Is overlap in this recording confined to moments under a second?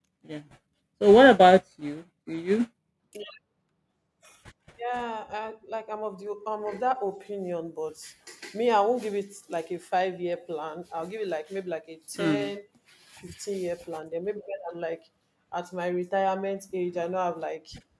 Yes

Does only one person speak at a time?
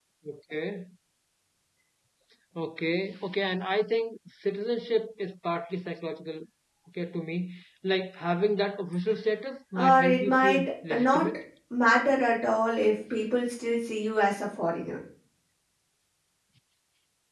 No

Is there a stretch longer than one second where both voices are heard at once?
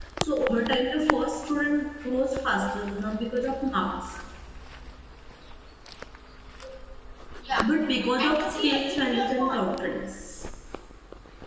Yes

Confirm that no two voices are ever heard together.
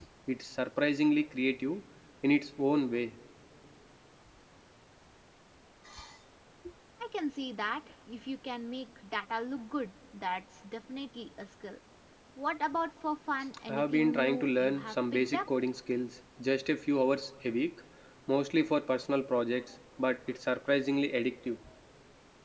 No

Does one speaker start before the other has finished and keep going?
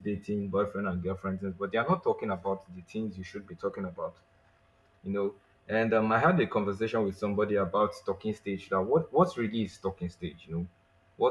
No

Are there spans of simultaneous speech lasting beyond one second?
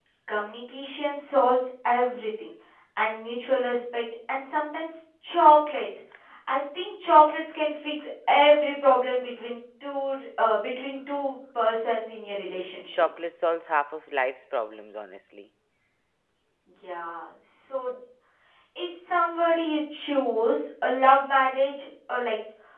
No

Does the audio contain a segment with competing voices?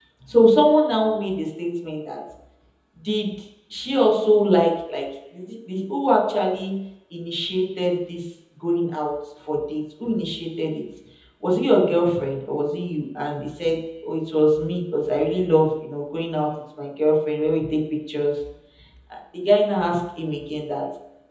No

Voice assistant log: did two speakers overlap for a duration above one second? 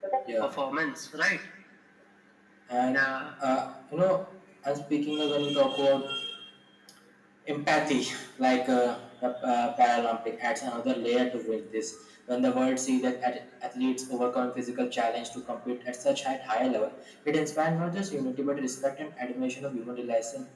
No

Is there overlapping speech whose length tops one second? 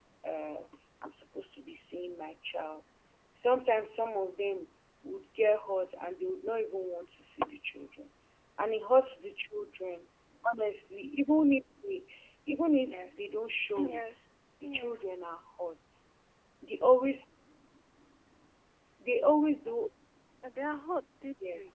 No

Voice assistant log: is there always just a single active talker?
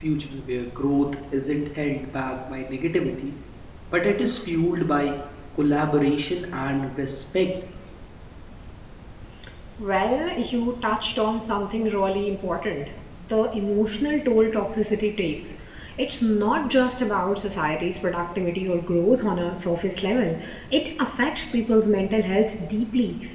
Yes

